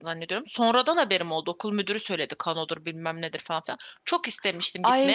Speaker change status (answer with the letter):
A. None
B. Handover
B